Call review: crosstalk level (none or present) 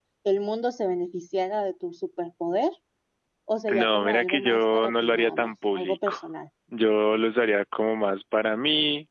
present